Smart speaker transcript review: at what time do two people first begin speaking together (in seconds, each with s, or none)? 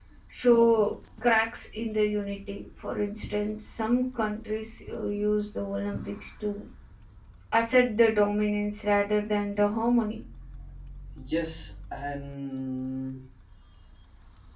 none